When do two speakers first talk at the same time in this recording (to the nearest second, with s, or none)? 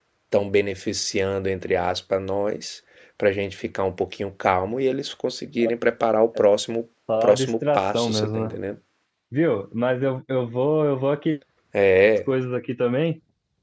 7 s